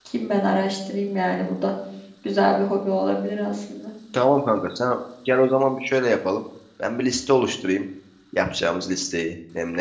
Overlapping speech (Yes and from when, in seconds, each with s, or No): No